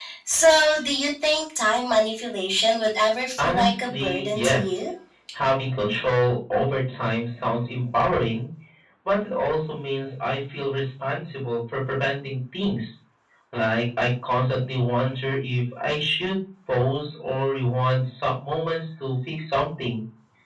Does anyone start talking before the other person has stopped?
Yes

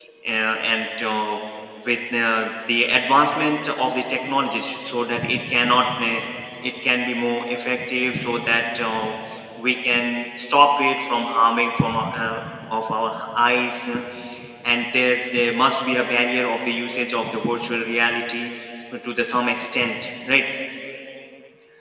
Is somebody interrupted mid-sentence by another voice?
No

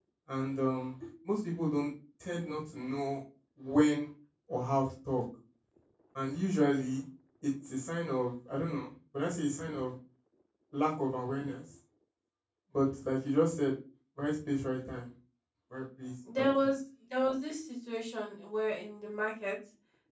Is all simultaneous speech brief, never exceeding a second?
Yes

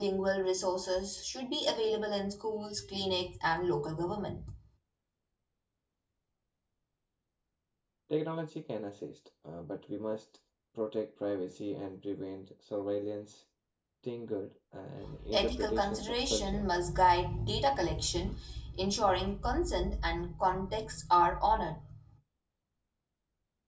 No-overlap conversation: No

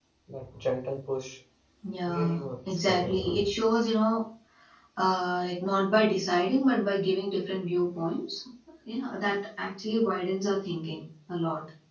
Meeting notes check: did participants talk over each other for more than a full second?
Yes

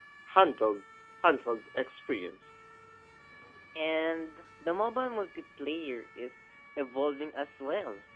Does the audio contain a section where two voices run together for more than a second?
No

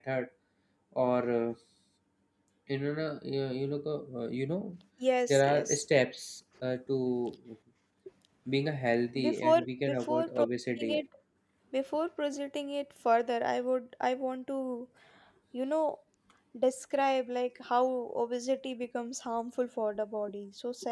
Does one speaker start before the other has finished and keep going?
Yes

